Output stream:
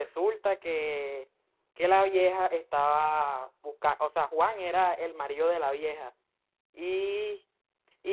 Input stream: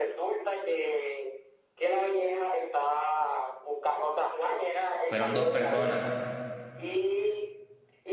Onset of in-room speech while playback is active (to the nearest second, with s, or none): 5 s